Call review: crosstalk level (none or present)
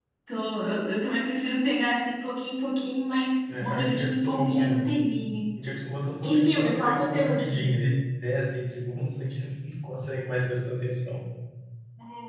present